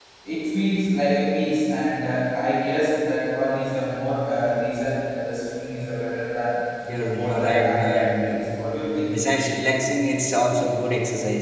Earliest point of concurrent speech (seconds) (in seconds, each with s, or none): 7.1 s